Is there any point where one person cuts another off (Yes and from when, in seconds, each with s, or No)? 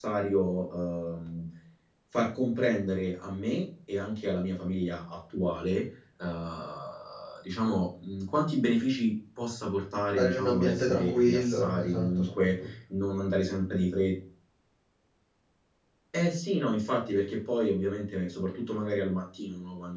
Yes, from 10.2 s